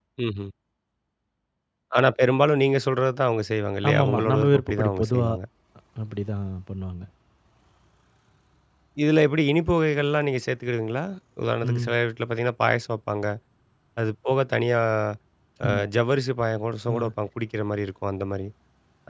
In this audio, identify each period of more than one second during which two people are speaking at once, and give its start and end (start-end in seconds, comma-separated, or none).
3.9-5.3